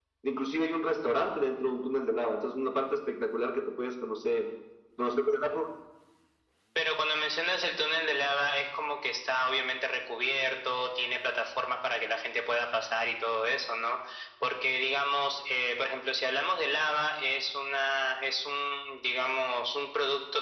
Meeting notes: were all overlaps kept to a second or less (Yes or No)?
Yes